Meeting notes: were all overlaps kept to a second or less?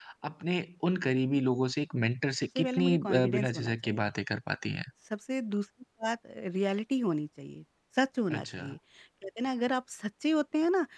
No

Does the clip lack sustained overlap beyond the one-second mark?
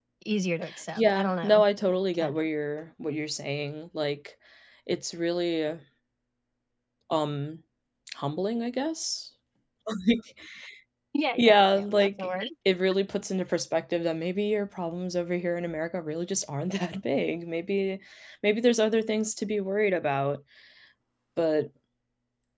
No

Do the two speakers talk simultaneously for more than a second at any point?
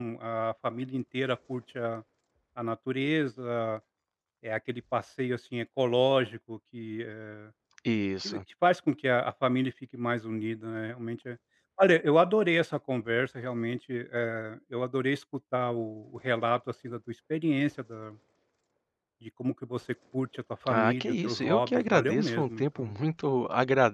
Yes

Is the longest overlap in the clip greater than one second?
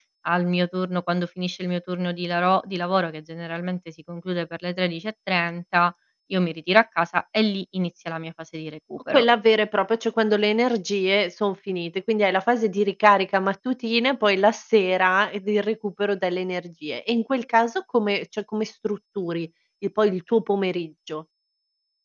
No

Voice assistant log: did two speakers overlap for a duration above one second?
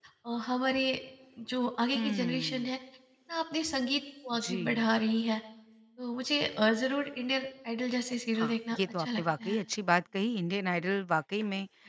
Yes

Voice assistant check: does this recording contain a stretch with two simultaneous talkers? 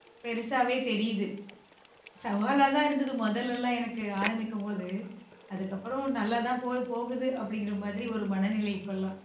No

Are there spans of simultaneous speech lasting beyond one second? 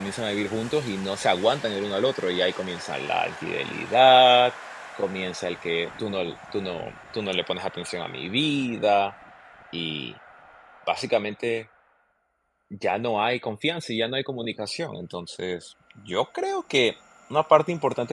No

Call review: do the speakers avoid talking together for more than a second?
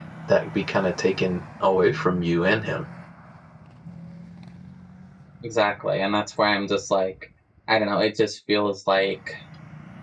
Yes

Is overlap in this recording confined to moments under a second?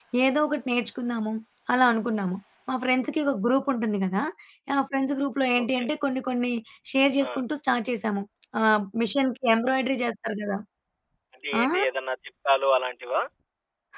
Yes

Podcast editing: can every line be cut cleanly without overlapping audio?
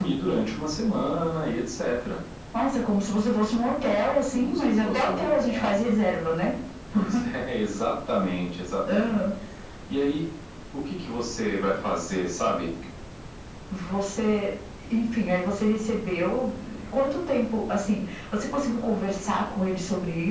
No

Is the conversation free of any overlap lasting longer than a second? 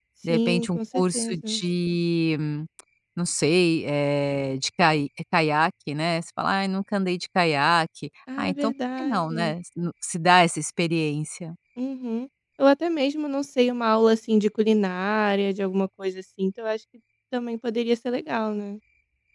No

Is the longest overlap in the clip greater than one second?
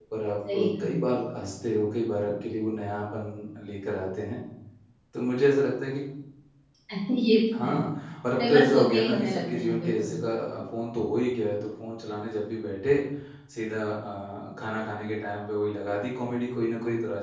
Yes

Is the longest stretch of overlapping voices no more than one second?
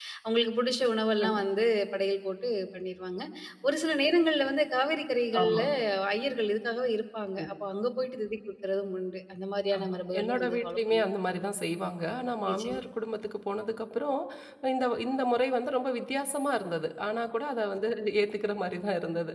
No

